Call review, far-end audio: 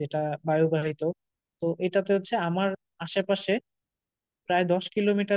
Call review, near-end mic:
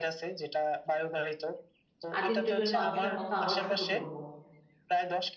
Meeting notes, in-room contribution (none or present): present